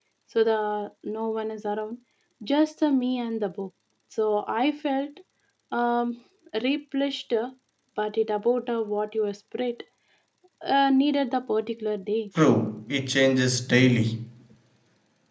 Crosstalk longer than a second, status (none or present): none